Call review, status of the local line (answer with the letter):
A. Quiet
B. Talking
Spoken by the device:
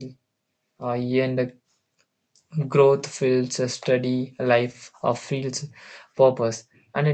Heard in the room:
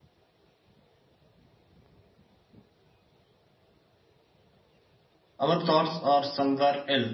B